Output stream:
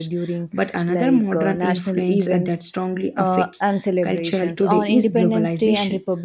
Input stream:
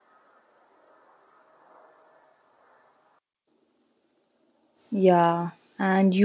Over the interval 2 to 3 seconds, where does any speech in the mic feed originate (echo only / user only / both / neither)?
neither